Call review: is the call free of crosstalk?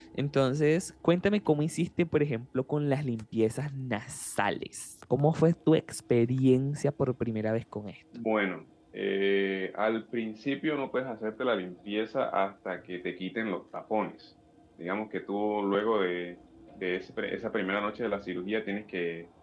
Yes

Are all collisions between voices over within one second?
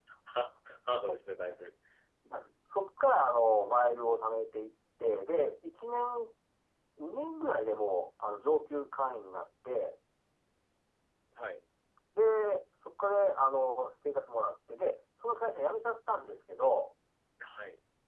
Yes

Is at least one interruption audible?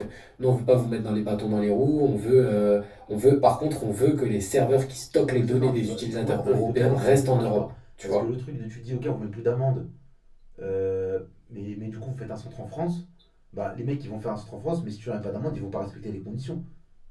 Yes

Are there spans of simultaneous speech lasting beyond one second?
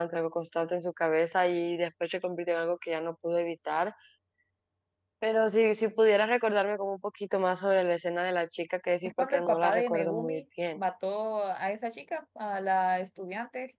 Yes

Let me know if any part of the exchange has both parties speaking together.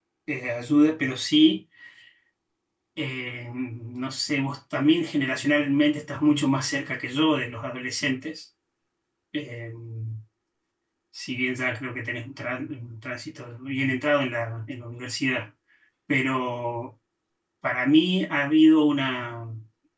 No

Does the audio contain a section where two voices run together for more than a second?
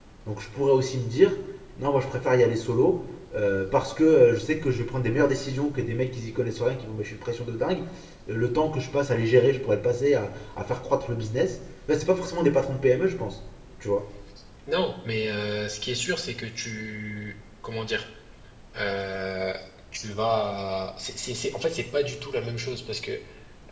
No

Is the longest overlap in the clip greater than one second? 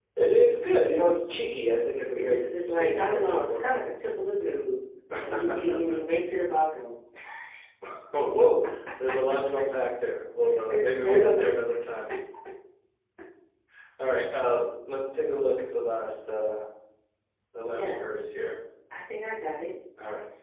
Yes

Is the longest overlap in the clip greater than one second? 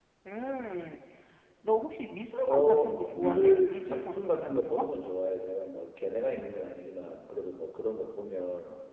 Yes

